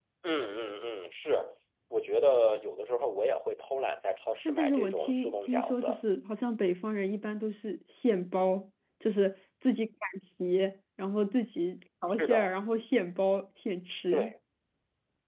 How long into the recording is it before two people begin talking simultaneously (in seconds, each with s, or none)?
4.5 s